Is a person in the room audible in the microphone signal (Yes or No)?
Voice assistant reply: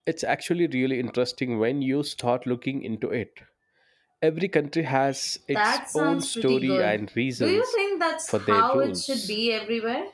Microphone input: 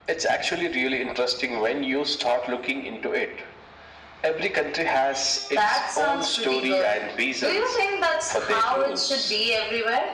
No